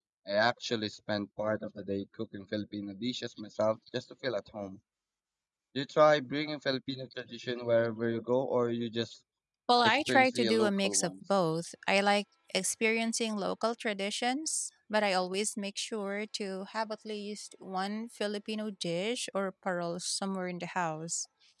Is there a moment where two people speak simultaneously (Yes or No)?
Yes